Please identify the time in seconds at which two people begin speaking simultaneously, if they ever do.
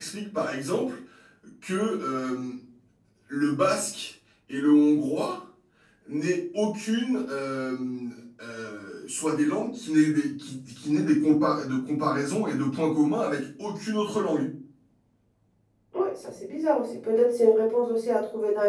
none

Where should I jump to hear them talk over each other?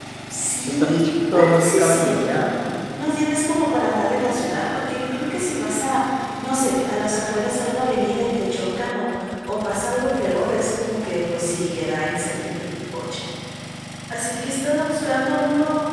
1 s

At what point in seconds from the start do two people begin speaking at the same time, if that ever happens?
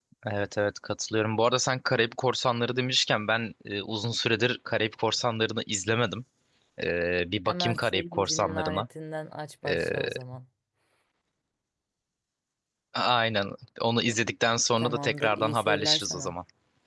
7 s

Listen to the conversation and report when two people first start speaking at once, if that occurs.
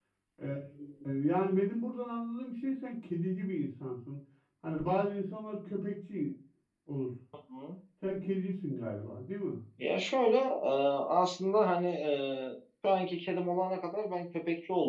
none

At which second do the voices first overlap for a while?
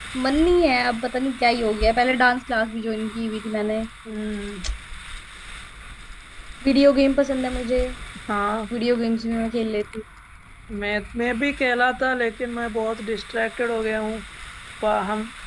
none

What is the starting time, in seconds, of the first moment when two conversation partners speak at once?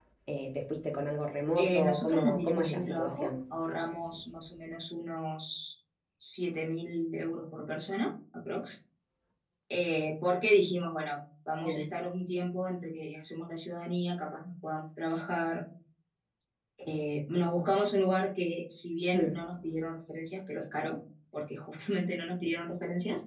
2 s

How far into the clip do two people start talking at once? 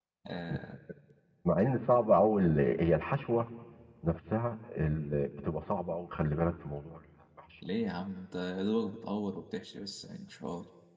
none

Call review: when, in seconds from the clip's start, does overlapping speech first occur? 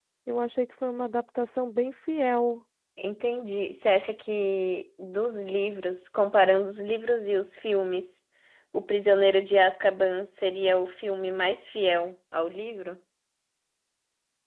none

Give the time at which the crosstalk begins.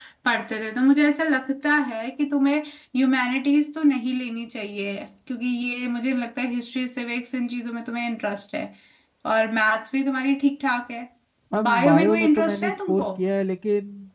12 s

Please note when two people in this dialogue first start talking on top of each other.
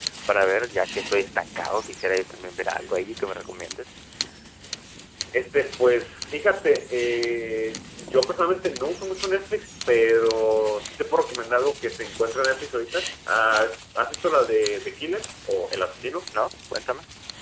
none

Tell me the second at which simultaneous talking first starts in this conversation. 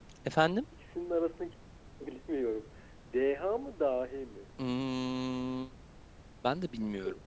none

